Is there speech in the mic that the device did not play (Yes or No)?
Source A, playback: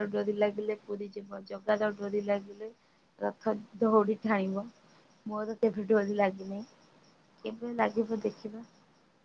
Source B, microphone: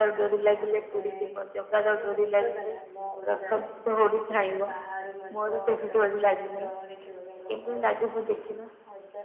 Yes